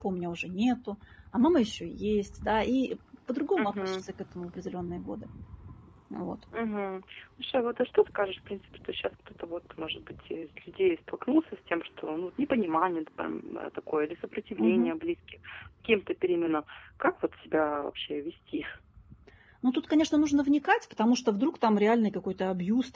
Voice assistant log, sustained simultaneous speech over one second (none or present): none